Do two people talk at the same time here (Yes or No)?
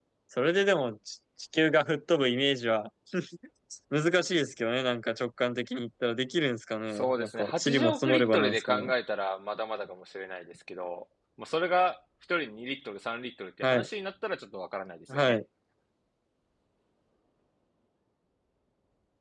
Yes